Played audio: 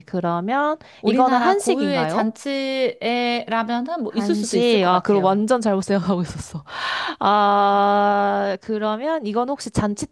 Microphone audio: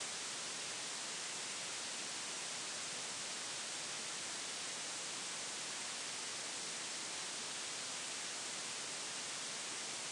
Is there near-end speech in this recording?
No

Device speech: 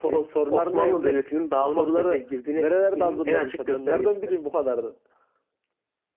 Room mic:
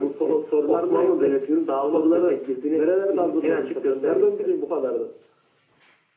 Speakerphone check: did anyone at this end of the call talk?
No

